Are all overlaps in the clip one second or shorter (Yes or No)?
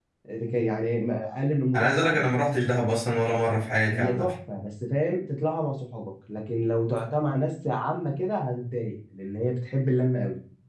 Yes